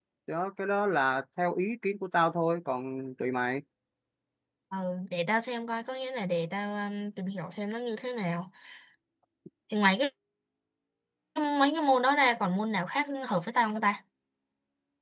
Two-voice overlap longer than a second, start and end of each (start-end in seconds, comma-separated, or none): none